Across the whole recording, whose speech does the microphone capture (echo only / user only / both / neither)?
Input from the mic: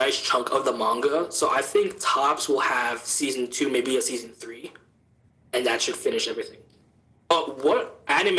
echo only